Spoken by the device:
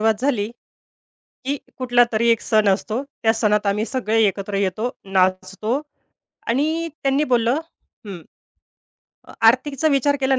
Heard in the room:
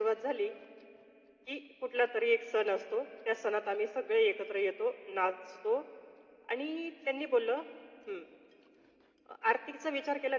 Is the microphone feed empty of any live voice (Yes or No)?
Yes